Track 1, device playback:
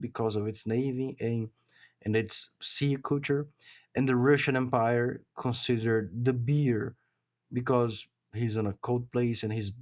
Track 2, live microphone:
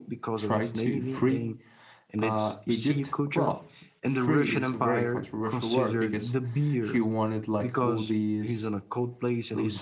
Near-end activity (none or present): present